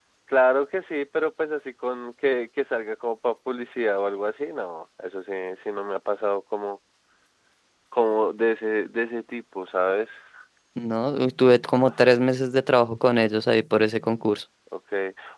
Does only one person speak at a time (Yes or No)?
Yes